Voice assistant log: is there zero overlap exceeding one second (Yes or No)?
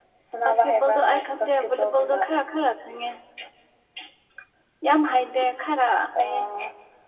No